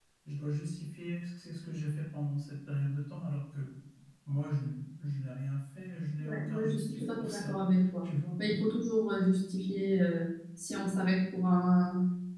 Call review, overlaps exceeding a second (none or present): present